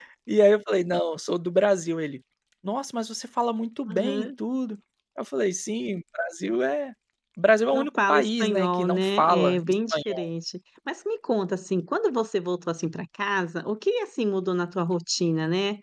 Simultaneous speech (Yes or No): Yes